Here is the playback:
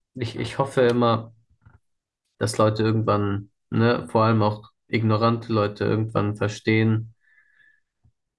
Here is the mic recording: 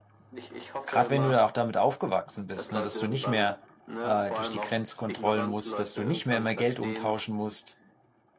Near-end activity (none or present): present